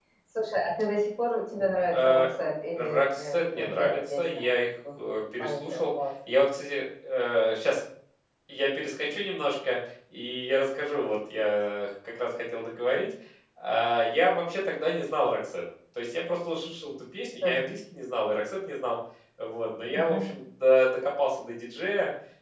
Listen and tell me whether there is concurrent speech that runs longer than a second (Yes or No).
Yes